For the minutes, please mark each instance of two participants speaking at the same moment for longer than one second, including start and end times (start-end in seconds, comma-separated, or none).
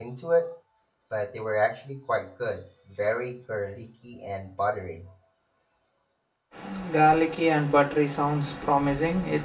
none